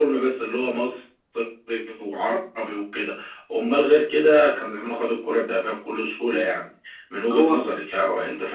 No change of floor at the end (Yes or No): Yes